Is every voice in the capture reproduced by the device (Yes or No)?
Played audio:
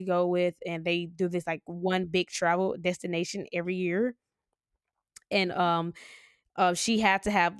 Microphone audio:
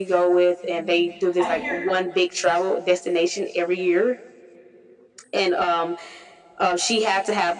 No